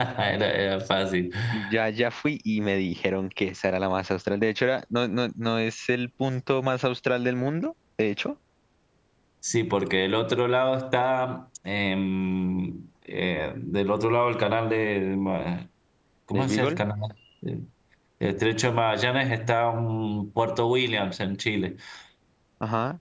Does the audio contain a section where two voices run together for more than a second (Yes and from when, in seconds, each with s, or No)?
No